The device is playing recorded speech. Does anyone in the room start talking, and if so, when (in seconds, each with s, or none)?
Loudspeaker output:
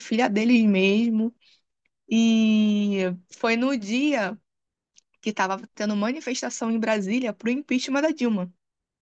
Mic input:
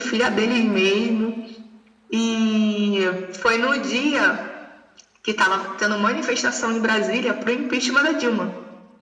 none